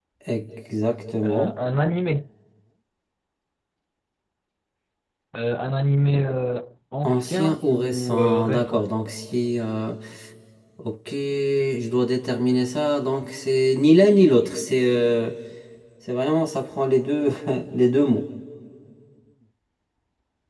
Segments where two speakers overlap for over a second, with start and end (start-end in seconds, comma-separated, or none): 7.0-8.8